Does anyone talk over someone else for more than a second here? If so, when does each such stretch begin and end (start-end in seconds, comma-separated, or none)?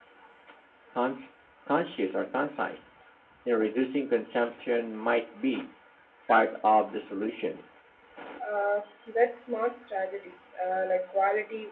none